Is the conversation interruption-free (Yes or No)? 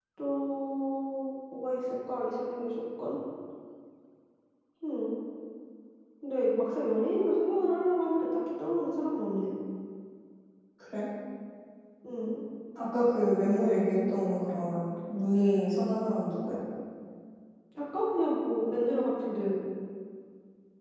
Yes